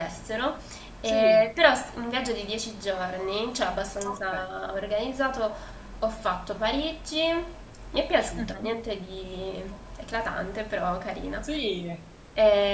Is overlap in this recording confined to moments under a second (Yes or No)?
Yes